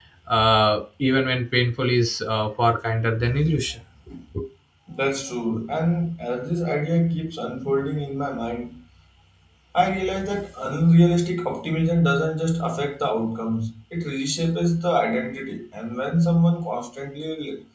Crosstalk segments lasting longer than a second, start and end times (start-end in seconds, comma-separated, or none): none